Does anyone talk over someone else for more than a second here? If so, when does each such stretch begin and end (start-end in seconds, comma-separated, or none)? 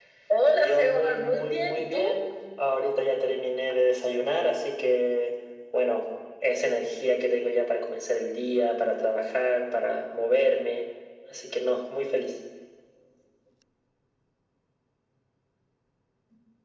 0.6-2.0